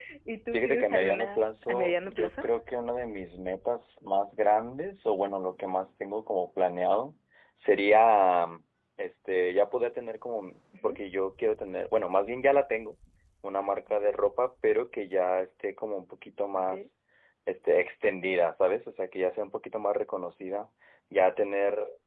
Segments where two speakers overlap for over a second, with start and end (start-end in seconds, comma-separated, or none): 0.5-2.5